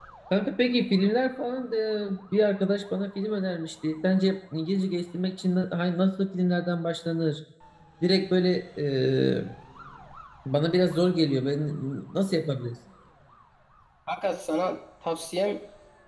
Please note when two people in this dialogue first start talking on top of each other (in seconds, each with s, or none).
none